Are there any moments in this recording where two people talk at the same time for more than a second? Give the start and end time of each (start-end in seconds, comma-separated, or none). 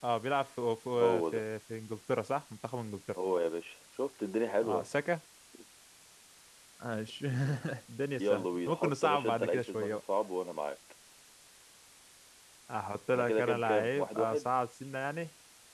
8.2-10.0, 13.1-14.5